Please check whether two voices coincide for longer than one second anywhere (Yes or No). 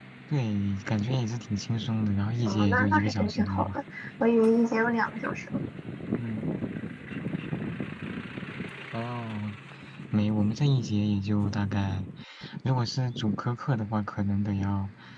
Yes